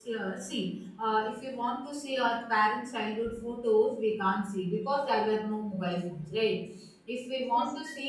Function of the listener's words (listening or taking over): listening